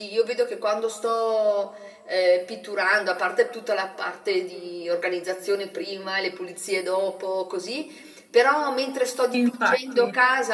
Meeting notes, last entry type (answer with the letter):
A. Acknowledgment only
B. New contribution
A